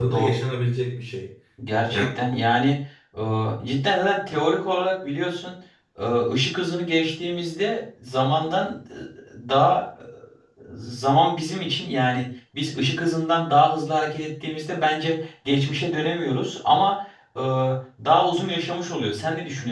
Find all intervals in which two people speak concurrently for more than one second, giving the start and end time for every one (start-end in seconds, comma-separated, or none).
none